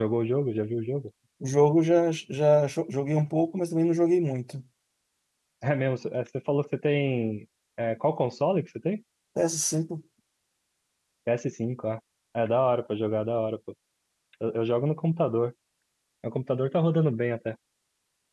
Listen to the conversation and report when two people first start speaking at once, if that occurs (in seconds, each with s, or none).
none